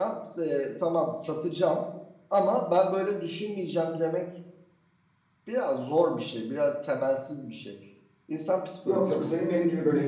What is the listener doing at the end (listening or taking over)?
taking over